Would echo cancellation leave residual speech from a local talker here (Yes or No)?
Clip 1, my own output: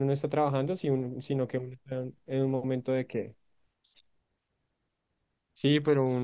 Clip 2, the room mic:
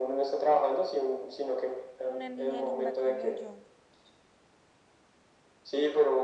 Yes